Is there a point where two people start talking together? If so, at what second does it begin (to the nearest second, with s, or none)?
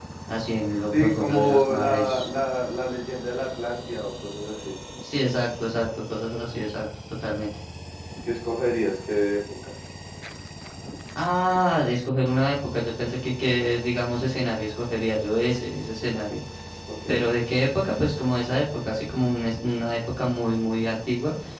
1 s